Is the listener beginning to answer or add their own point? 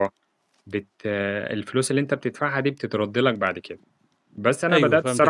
Yes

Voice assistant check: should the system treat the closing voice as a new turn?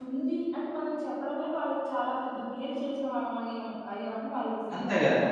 Yes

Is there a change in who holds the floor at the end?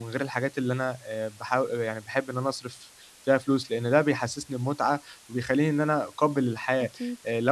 No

